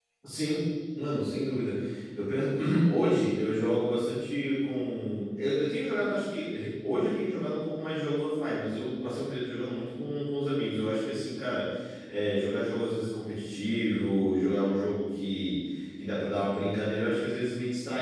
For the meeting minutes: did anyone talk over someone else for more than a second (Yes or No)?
No